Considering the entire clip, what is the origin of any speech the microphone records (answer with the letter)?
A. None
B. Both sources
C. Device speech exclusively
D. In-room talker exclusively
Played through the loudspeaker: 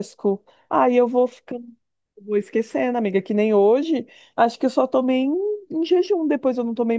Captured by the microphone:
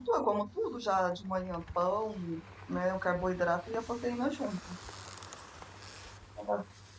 D